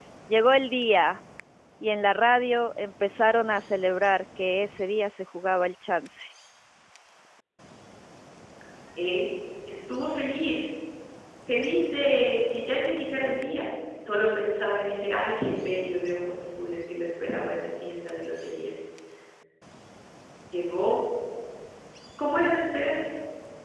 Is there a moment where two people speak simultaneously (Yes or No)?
No